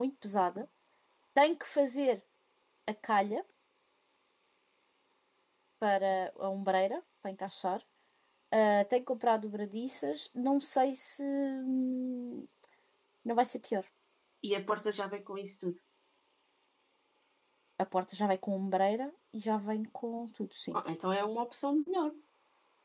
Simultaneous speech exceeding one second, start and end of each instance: none

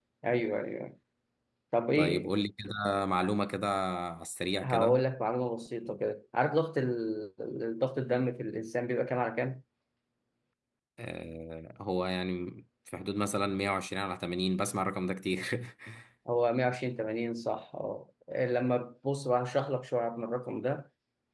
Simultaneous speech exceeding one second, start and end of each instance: none

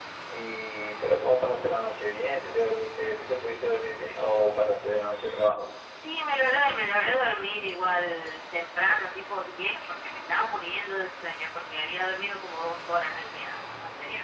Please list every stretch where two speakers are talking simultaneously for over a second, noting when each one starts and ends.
none

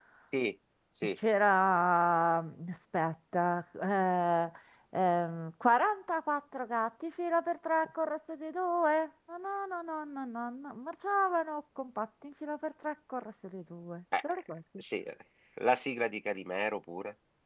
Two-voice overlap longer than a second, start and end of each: none

